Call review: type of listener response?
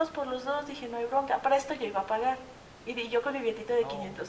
listening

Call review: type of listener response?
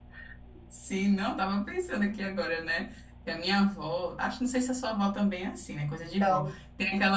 listening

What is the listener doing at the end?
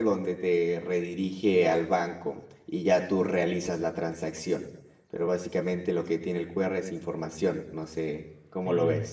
taking over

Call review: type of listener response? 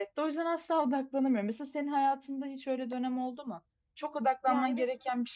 listening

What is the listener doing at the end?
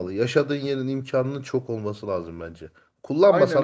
taking over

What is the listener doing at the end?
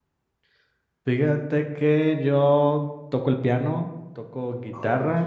listening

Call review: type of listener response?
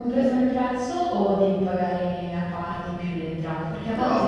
taking over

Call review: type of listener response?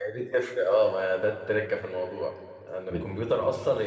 listening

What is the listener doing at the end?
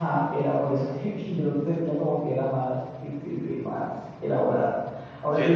listening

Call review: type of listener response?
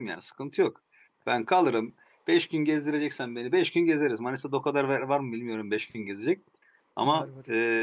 listening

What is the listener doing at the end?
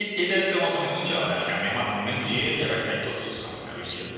taking over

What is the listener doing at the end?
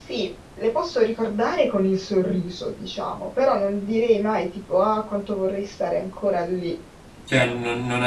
taking over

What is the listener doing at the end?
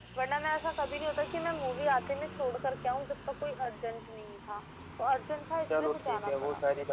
taking over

